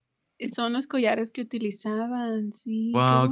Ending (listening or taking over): taking over